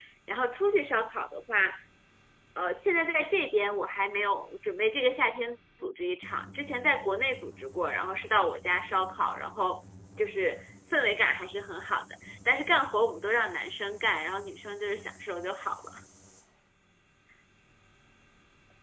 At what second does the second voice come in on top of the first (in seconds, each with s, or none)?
none